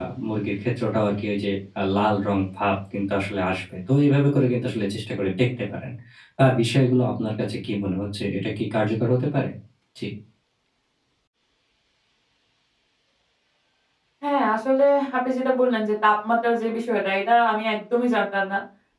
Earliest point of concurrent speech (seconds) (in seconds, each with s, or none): none